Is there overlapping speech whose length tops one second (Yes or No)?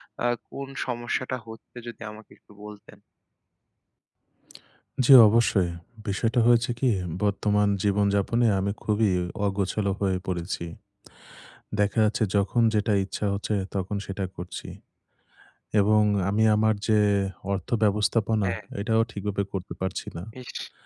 No